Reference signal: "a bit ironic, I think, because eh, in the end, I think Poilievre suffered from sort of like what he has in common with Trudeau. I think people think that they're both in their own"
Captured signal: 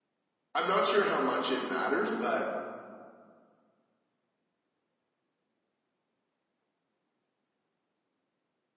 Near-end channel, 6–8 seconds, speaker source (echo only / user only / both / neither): neither